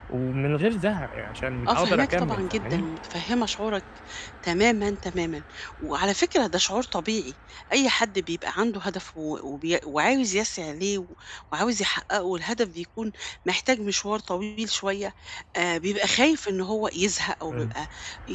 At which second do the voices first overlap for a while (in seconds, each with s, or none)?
1.7 s